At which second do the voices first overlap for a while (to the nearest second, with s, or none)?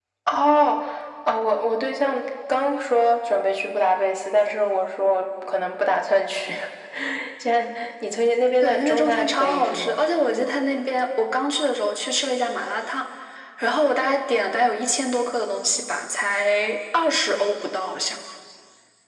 9 s